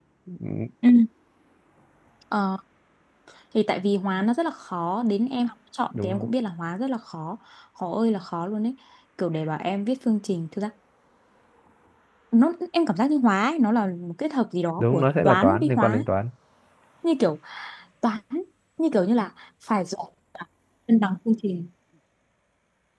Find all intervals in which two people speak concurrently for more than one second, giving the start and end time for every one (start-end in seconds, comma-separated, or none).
14.8-16.0